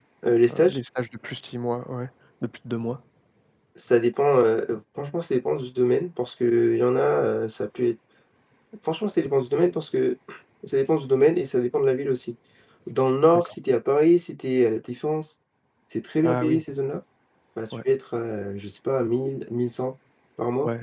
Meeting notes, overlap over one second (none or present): none